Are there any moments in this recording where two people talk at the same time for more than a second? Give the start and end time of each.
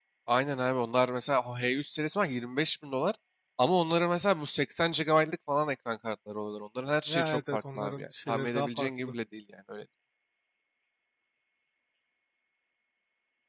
7.1-9.1

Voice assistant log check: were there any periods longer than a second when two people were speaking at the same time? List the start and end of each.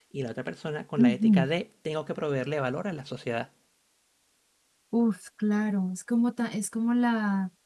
none

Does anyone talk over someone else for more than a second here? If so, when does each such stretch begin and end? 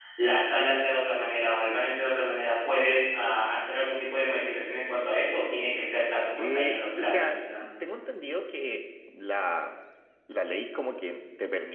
6.4-7.6

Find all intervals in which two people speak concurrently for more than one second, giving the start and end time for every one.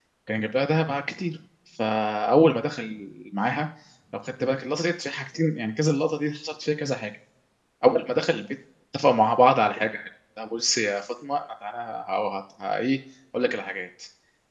none

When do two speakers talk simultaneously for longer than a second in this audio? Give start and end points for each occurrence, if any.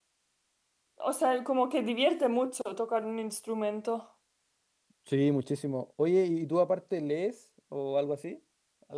none

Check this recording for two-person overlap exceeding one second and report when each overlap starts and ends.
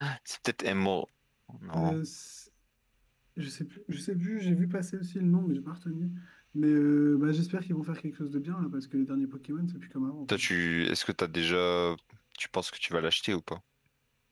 none

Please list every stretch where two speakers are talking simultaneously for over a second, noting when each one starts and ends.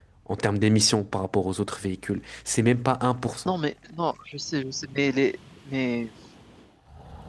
none

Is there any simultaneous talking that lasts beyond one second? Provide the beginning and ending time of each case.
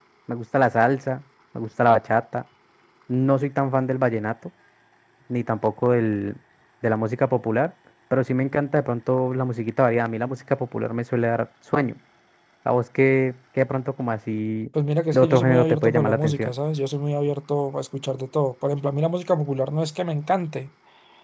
15.1-16.5

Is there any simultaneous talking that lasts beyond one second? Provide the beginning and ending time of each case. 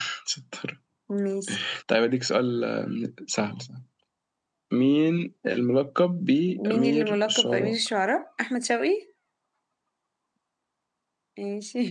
6.5-7.8

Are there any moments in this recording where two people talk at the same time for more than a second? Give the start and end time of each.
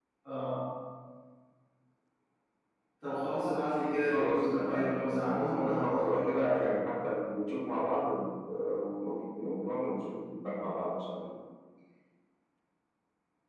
4.1-6.8

